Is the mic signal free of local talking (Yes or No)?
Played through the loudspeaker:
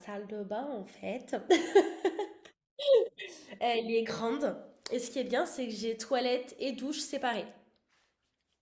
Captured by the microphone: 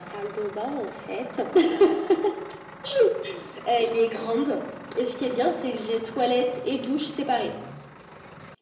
Yes